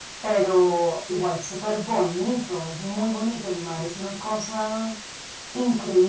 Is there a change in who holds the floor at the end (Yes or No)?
Yes